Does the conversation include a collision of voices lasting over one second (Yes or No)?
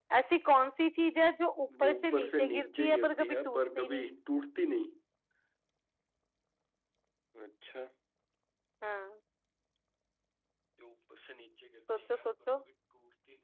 Yes